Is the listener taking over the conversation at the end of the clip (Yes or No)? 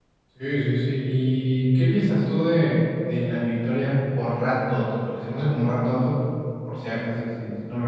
Yes